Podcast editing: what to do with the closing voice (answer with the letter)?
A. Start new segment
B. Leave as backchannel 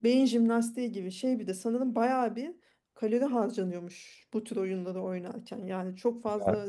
B